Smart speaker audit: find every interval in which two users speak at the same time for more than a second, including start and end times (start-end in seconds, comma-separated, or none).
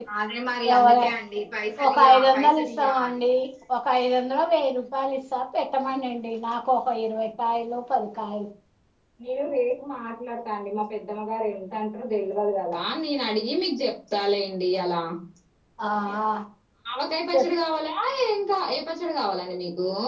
1.9-3.2